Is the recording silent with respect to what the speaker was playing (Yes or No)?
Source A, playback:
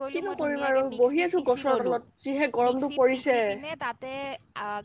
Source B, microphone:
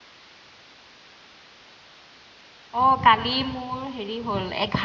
Yes